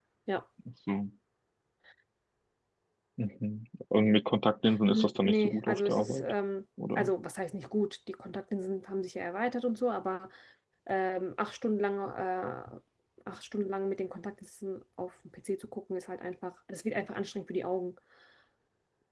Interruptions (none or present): present